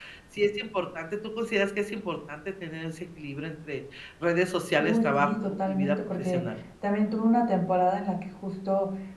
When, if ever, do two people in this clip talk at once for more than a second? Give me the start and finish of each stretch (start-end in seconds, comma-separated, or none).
4.8-6.4